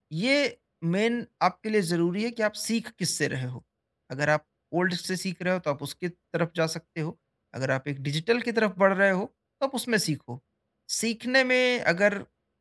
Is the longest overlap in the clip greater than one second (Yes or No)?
No